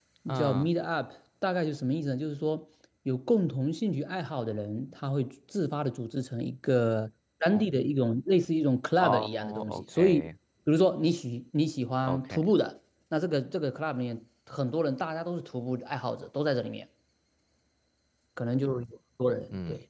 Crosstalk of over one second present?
Yes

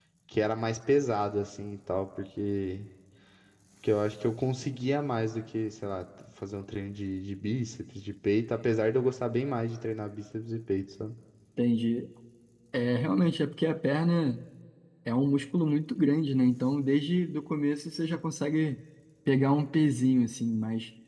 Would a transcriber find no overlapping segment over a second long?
Yes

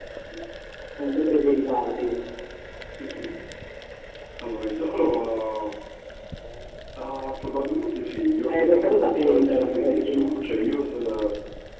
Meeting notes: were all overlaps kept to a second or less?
No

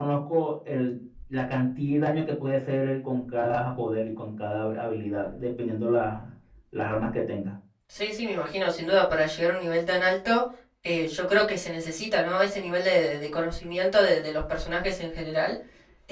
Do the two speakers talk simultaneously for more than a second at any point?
No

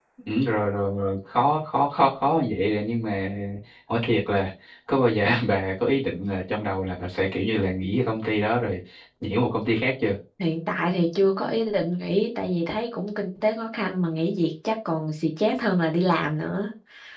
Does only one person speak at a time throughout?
Yes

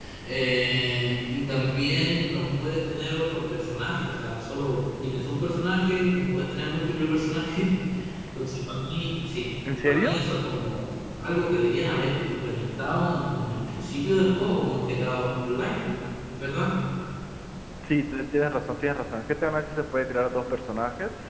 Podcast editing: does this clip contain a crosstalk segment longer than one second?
No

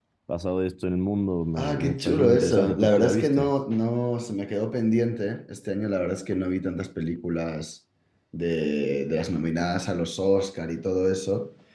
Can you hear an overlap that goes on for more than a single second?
Yes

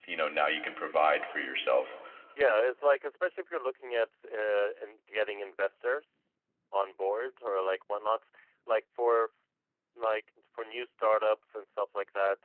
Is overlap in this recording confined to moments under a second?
Yes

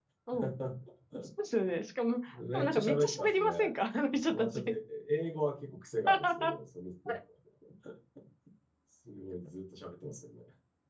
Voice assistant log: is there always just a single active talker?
No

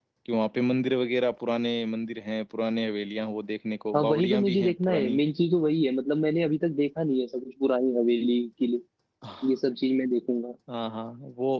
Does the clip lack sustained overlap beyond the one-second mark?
No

